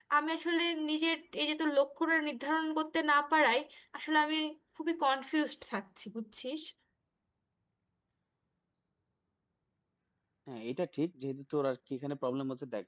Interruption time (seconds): none

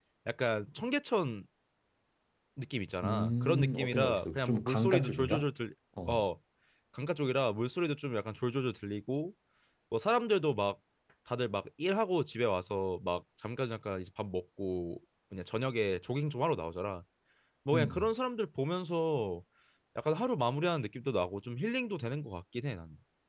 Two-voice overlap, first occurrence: 3 s

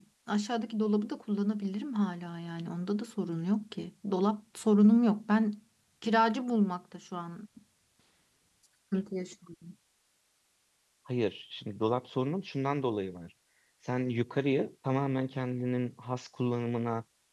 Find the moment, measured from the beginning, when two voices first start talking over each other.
none

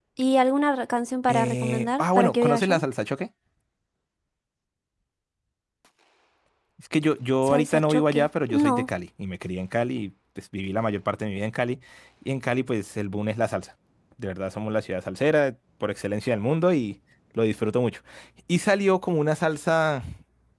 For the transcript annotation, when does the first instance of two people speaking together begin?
1 s

